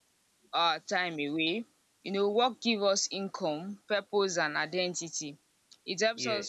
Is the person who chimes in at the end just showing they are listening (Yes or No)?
Yes